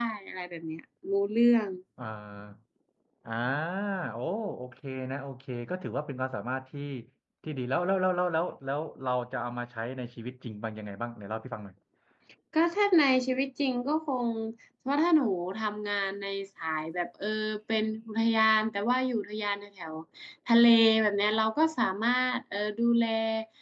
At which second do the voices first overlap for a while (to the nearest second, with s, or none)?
none